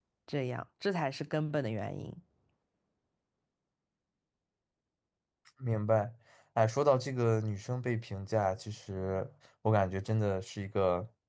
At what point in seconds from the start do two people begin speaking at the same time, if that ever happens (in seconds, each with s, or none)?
none